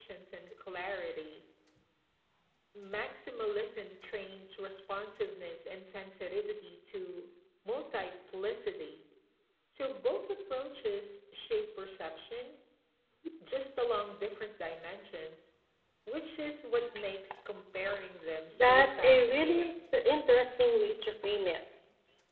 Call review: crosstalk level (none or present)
present